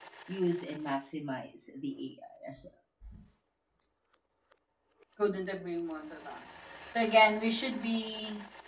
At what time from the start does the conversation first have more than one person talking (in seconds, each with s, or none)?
none